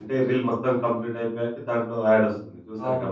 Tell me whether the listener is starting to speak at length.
Yes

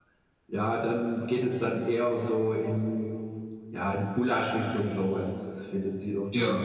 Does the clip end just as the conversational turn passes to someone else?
No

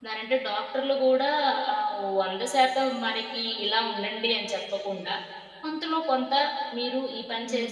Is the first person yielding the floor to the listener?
No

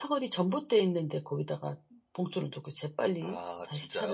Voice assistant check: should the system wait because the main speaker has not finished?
Yes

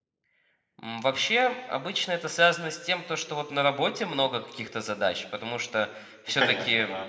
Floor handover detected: No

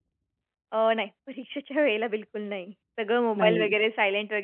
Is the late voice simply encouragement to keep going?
Yes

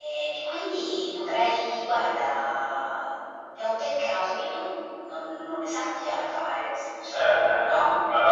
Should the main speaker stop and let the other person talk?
Yes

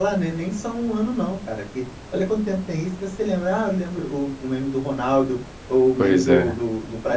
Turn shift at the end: No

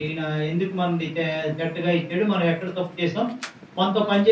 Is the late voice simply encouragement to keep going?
No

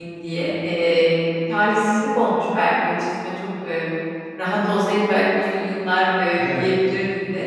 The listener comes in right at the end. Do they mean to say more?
No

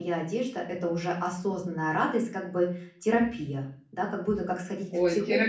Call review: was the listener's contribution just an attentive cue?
No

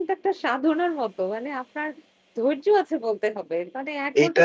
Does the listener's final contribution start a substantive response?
No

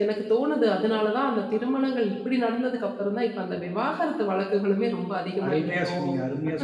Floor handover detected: Yes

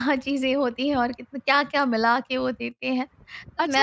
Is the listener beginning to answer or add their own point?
Yes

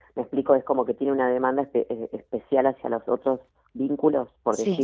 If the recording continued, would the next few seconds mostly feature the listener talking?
Yes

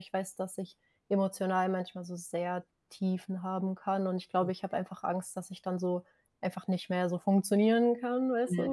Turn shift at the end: Yes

